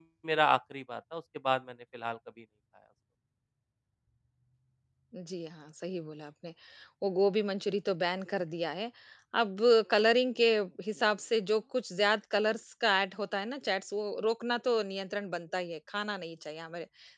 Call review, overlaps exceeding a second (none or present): none